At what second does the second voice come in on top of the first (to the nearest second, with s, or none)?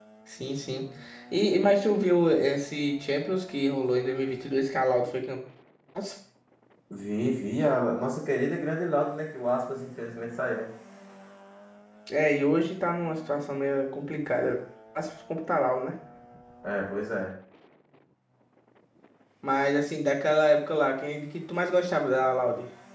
none